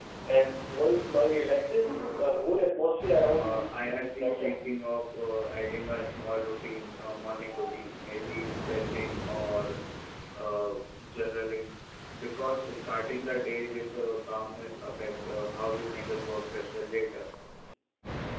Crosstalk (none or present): present